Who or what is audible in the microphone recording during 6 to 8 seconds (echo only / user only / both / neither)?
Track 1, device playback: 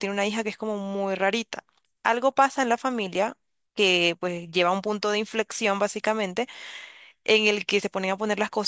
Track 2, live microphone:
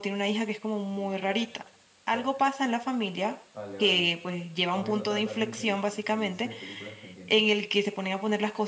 both